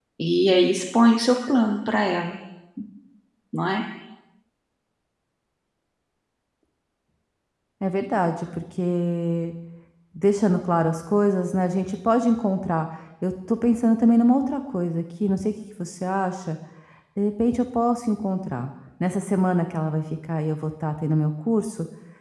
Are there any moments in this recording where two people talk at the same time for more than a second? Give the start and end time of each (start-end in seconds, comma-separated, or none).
none